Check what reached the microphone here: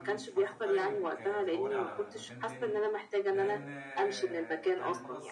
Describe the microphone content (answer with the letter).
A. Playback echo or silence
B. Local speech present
B